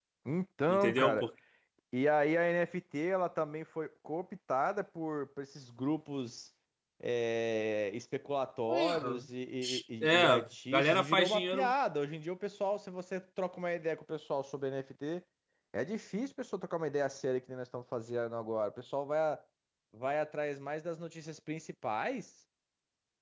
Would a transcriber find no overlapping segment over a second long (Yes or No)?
No